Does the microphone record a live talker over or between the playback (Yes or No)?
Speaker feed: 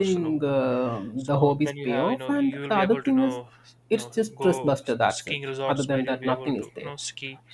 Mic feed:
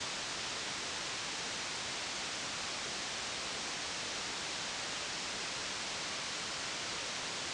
No